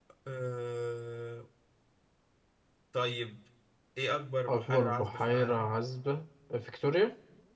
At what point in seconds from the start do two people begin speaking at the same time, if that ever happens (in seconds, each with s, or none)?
4.5 s